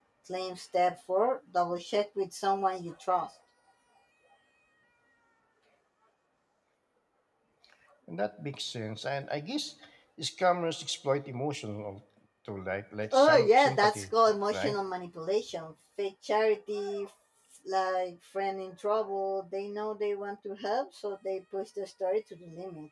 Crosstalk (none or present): present